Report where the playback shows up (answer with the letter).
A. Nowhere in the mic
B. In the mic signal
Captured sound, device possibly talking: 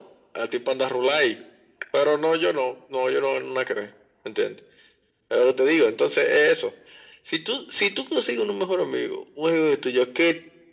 B